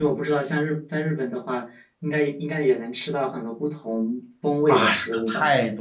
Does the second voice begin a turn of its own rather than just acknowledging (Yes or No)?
Yes